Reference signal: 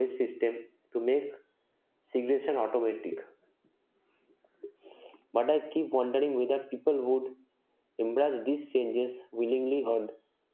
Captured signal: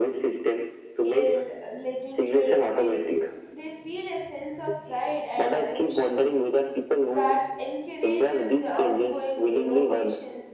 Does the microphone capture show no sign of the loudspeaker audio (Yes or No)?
No